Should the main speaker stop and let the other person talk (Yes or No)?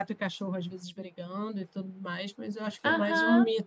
Yes